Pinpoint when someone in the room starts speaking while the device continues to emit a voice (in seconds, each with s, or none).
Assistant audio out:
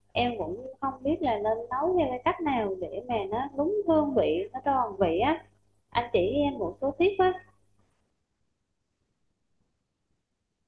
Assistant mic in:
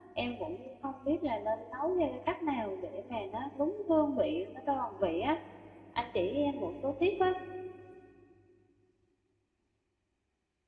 none